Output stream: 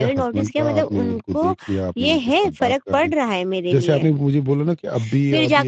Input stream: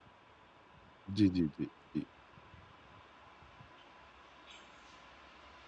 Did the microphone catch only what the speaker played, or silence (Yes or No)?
No